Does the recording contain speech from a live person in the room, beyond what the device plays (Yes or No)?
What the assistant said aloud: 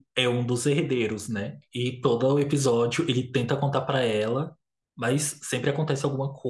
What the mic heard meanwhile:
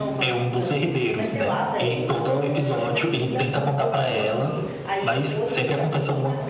Yes